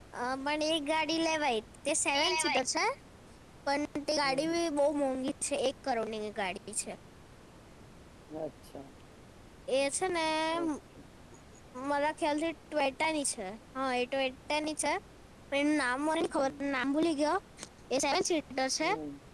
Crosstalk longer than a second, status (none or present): none